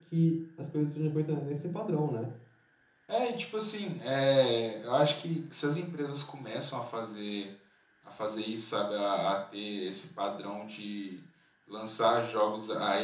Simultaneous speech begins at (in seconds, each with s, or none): none